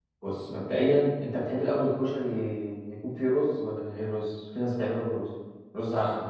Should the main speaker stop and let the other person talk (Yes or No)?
Yes